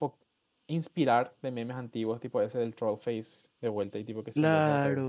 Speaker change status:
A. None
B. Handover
B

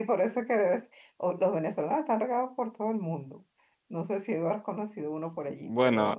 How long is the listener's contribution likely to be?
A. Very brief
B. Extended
B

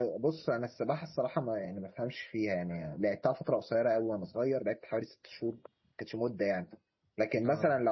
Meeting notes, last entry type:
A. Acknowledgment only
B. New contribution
A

